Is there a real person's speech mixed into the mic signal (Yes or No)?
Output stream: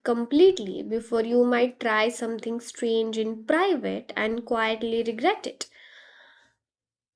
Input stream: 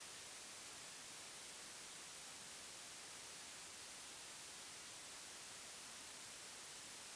No